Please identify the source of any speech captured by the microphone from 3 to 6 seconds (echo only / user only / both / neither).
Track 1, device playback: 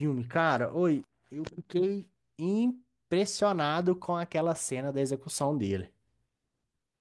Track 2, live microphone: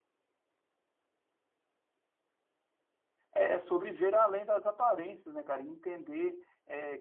user only